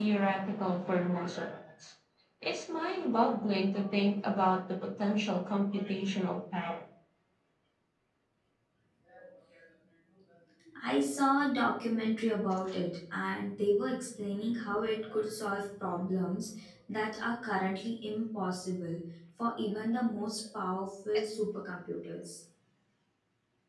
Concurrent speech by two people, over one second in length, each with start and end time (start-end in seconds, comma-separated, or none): none